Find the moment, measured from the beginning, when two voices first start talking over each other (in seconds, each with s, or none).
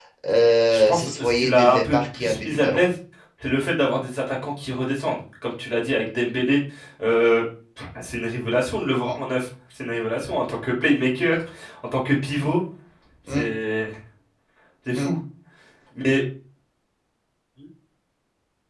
0.7 s